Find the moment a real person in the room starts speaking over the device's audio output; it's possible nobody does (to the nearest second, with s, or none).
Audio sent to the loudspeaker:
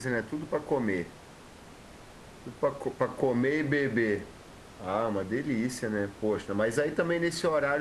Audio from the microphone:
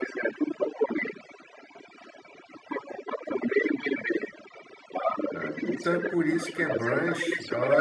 5 s